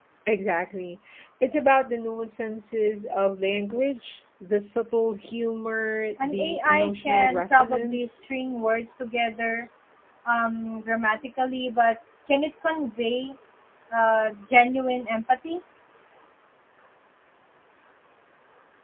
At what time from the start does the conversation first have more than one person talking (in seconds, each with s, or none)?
6.2 s